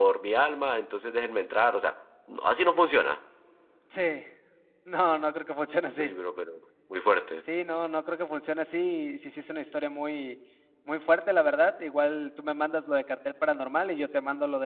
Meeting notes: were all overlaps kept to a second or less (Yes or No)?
Yes